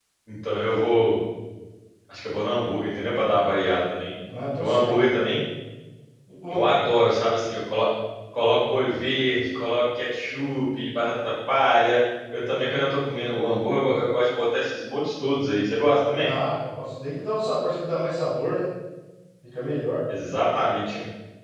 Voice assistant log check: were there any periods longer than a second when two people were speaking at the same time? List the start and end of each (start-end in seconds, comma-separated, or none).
none